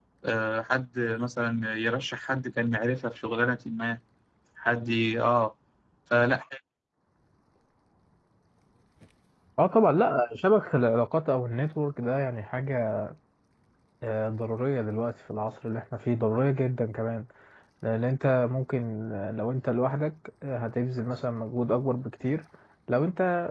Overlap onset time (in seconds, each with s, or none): none